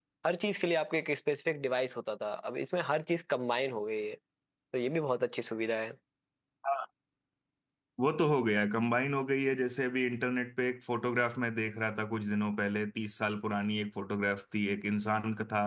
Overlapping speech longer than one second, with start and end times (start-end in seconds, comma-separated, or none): none